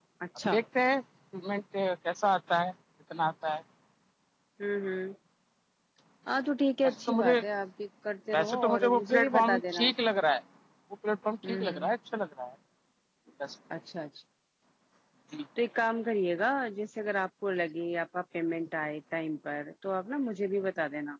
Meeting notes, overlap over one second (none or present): present